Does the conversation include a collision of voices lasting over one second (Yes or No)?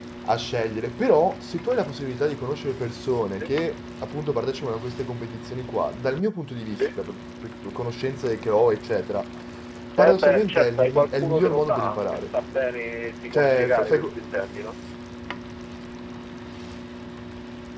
Yes